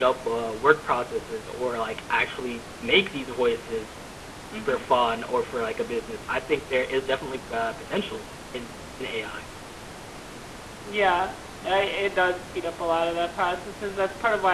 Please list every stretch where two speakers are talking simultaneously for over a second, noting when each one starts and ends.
none

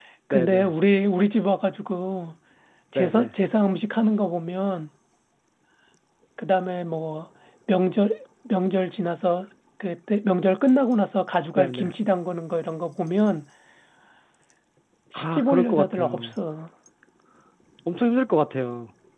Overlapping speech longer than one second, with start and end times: 15.1-16.4

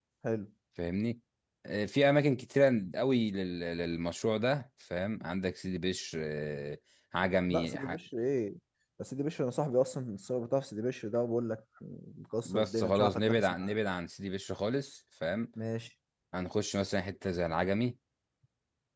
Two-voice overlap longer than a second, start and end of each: 12.4-13.7

